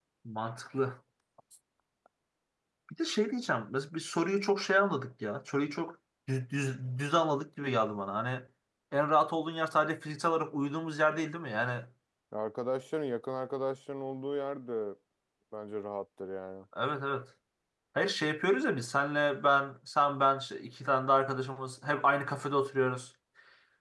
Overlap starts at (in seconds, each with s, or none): none